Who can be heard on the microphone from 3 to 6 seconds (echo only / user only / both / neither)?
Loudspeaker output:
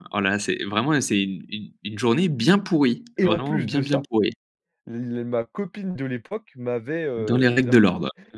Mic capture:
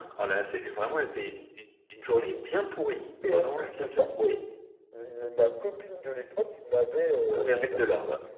echo only